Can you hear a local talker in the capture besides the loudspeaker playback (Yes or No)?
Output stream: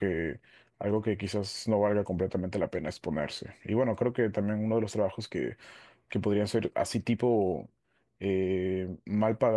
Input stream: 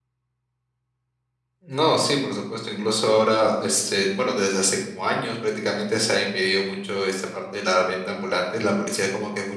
Yes